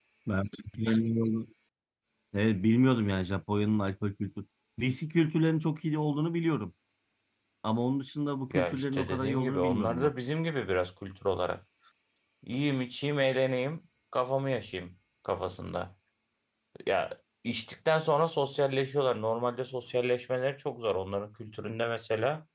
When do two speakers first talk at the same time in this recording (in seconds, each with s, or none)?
8.5 s